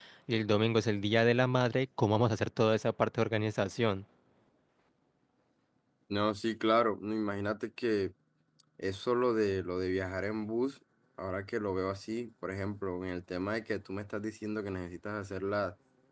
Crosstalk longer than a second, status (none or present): none